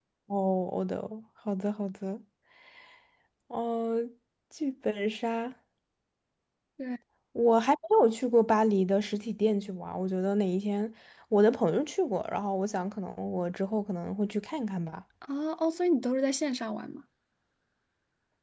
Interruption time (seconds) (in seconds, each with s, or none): none